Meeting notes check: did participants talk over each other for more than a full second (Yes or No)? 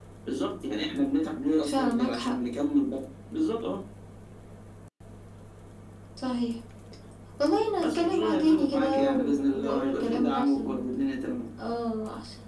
Yes